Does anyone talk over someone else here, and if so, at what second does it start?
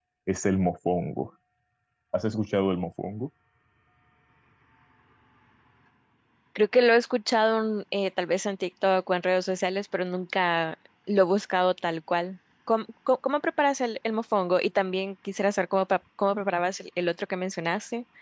none

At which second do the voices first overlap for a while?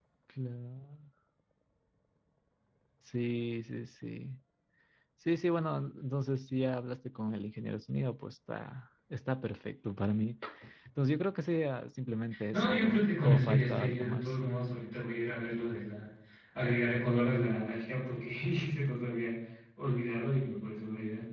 12 s

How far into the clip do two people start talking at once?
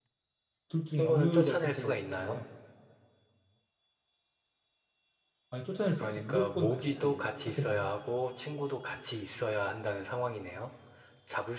1 s

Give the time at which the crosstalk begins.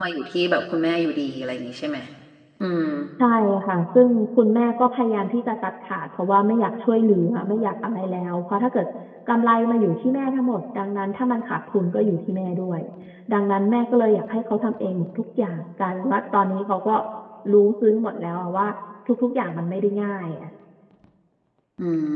none

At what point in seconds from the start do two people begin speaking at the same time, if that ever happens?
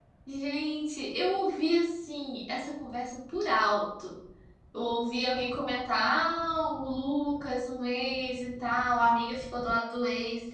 none

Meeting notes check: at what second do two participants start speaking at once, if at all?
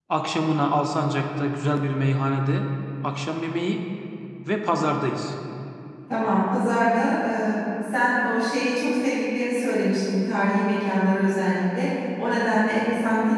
none

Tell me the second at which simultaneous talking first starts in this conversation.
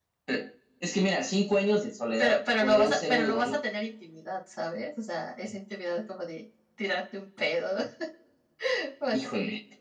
2 s

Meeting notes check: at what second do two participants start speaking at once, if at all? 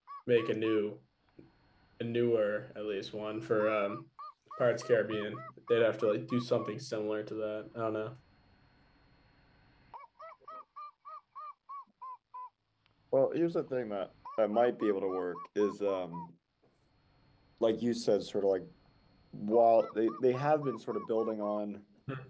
none

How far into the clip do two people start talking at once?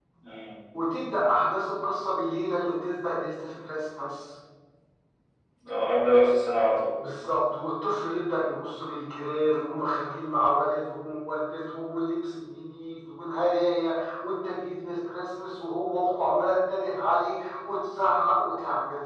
none

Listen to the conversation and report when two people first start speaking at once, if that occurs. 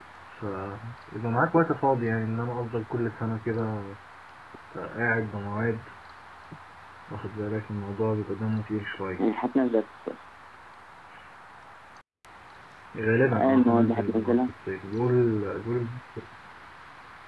13 s

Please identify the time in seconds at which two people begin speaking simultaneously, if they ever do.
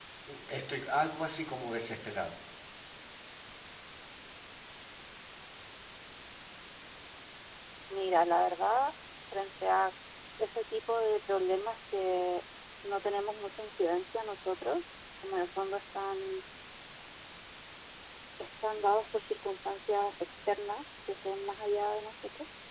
none

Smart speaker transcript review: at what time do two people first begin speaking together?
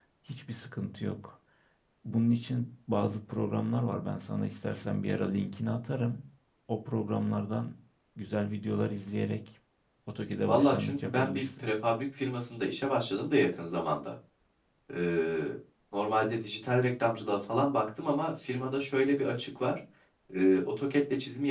10 s

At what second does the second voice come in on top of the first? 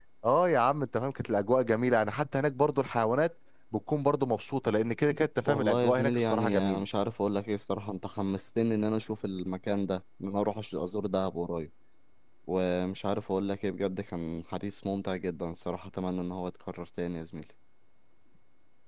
5 s

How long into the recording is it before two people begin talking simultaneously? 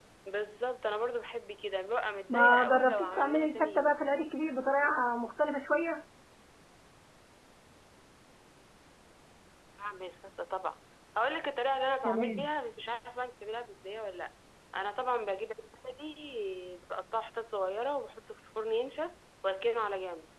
2 s

